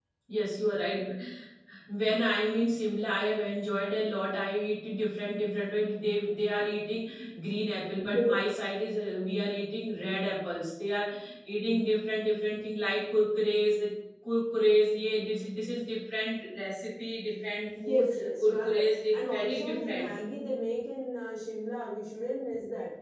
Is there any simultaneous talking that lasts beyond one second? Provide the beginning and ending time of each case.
18.4-20.1

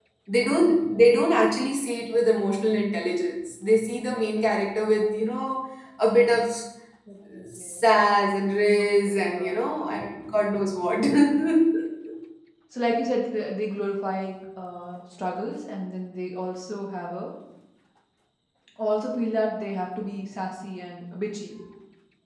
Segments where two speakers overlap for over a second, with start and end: 8.8-10.1

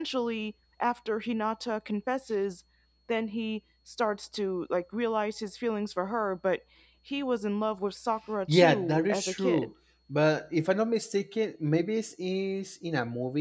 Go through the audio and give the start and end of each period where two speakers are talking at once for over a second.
8.5-9.7

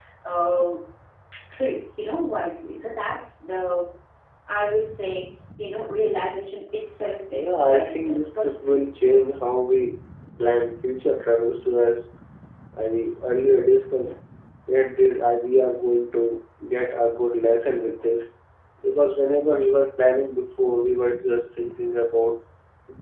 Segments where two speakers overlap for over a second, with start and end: 7.3-8.9

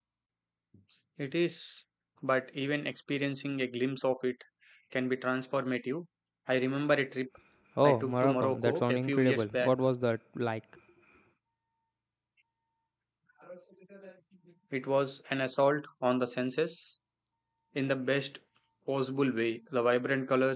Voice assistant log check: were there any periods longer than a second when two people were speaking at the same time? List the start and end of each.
7.8-9.7

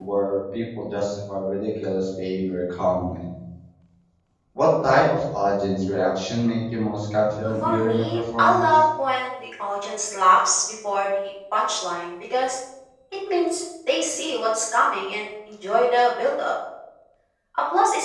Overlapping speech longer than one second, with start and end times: 7.4-8.7

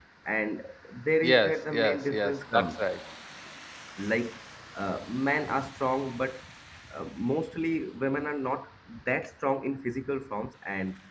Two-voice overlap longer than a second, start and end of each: 1.2-2.8

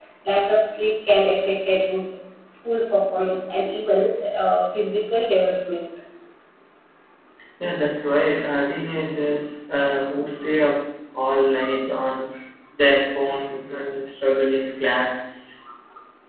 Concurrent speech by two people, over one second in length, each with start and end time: none

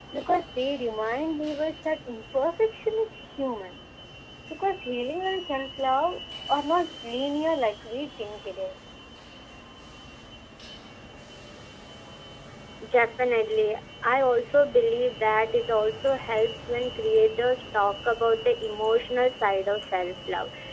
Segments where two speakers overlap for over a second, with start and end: none

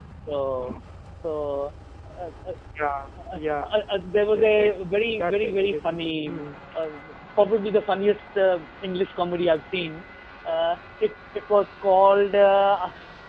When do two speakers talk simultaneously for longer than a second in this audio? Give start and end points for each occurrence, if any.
5.1-6.4

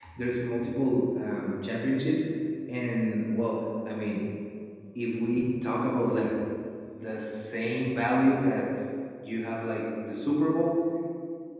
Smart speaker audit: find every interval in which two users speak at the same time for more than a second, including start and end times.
none

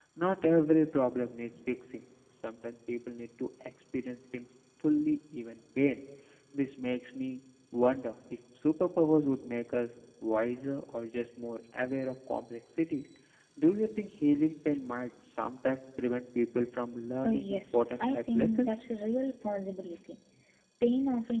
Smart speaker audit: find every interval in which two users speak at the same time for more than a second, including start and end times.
17.2-18.7

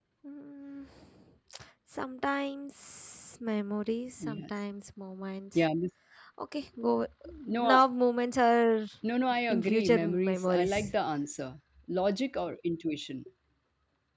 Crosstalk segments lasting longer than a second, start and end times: 9.5-11.0

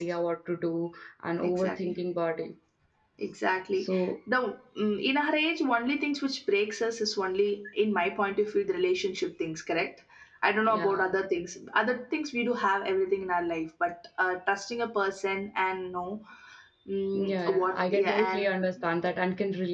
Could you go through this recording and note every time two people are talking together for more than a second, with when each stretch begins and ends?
17.1-18.5

